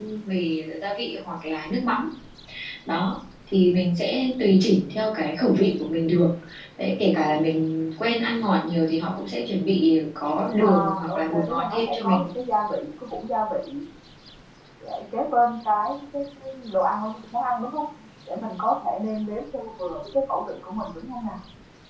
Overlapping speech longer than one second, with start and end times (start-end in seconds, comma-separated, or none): 10.6-12.2